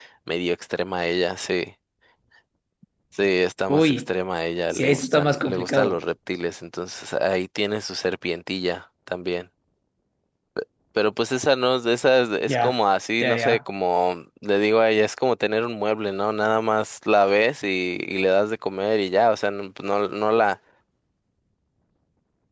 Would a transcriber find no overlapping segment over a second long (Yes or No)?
No